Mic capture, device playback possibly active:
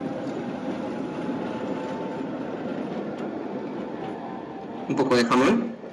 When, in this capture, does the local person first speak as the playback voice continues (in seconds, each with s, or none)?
4.9 s